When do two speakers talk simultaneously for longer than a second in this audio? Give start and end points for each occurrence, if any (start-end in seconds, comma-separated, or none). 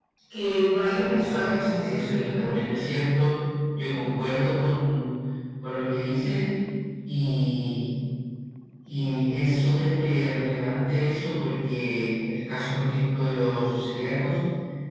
0.8-2.7